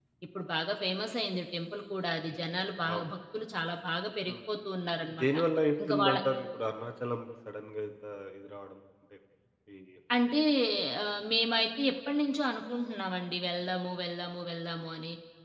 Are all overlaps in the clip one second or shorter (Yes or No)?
Yes